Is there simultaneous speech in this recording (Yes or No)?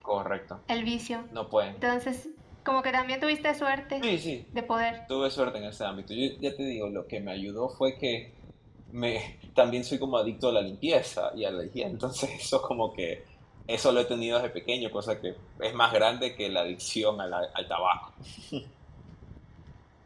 No